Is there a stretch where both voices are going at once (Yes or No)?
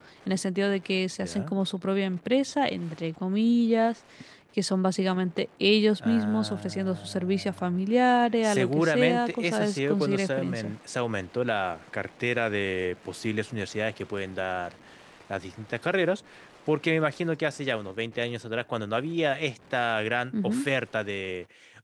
Yes